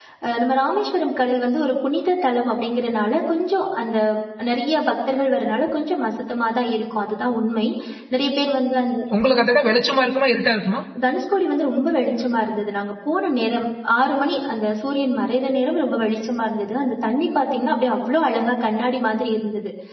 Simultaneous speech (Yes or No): No